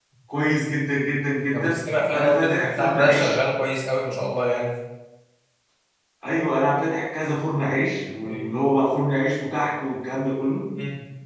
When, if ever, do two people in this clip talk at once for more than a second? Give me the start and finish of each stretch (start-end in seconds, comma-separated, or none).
2.1-3.4